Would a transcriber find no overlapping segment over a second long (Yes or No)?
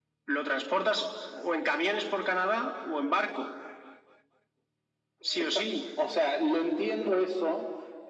Yes